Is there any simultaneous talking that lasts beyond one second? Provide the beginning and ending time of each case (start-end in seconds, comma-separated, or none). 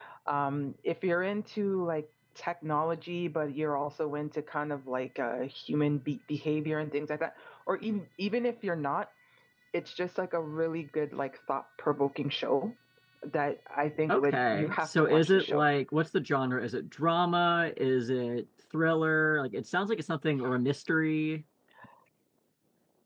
14.1-15.6